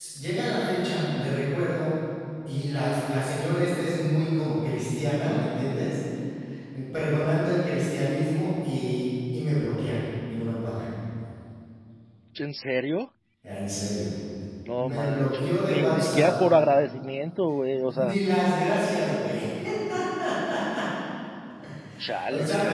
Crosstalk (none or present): present